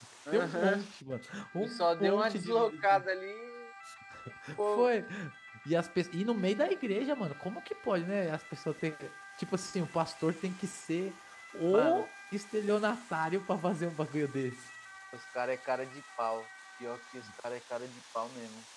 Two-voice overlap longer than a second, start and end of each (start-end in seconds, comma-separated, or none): 1.6-3.0